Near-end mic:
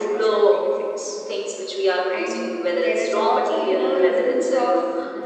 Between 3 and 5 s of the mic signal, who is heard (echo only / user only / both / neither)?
echo only